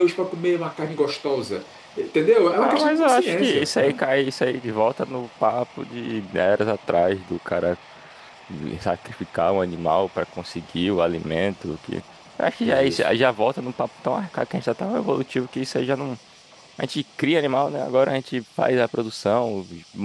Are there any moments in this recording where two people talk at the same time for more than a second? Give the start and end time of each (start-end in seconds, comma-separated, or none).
2.6-4.0